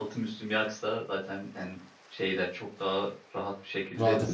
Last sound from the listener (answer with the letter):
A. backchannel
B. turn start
B